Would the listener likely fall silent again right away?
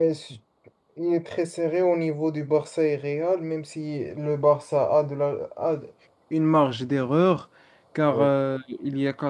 Yes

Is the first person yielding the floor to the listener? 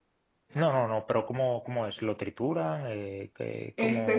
Yes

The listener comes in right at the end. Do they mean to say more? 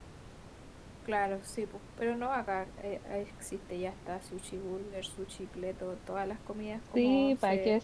Yes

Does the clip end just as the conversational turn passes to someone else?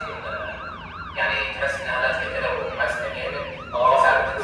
Yes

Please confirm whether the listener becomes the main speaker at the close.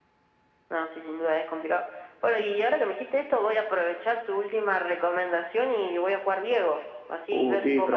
Yes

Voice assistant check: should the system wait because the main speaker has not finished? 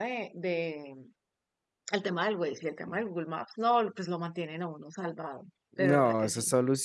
No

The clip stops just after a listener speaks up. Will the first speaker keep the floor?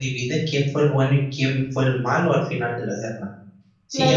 No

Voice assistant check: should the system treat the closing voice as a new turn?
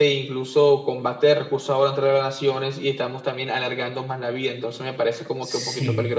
Yes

